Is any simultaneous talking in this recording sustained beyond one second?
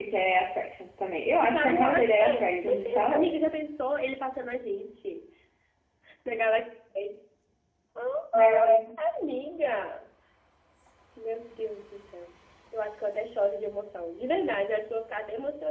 Yes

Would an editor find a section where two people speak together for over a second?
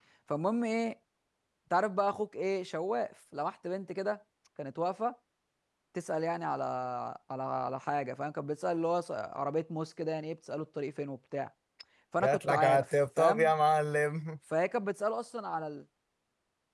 Yes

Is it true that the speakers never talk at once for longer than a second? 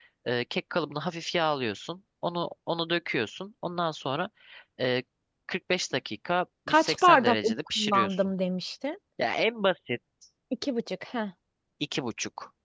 No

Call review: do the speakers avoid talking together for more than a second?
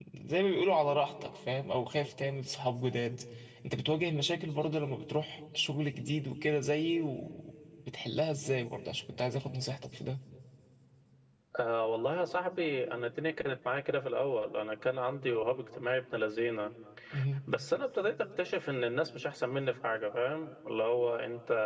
Yes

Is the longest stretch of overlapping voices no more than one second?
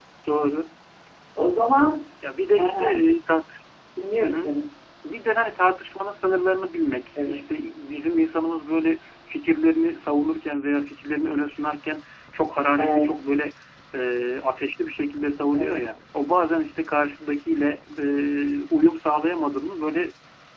Yes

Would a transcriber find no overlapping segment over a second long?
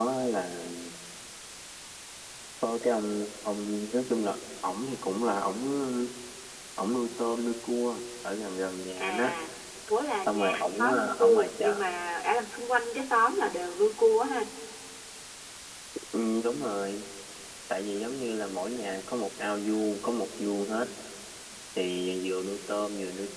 No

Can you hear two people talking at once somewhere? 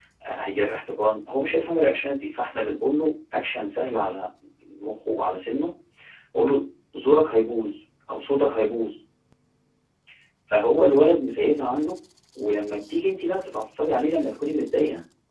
No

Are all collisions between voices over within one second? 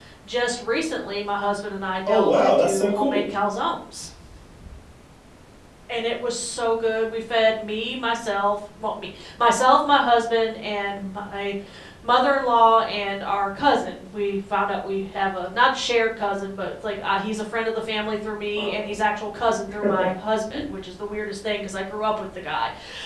No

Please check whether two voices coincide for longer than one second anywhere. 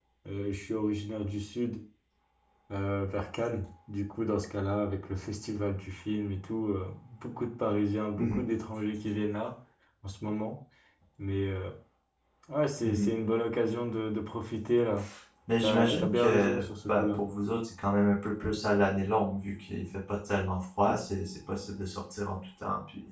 Yes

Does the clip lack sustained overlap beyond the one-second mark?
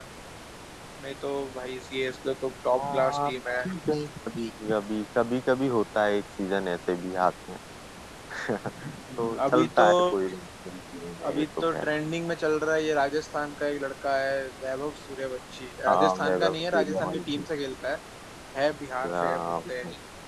No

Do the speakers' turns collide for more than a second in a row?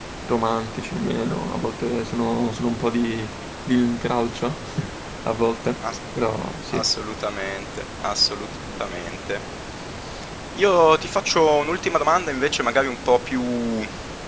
No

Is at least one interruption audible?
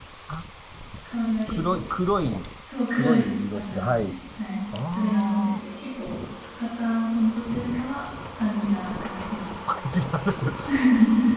Yes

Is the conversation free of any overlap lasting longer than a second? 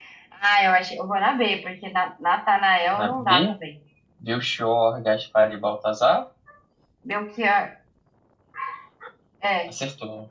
Yes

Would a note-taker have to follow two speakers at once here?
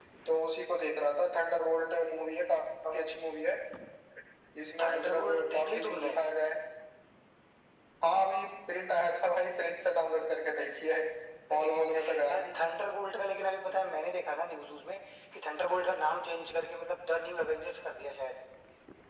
Yes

